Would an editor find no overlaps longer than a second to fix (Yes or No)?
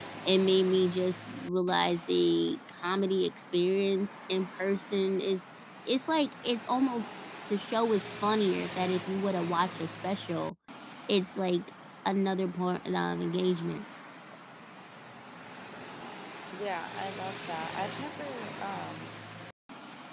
Yes